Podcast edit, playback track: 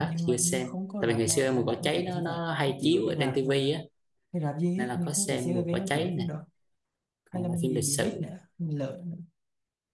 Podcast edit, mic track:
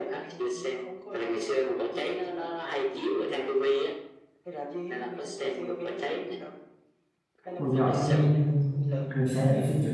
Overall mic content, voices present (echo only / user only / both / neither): both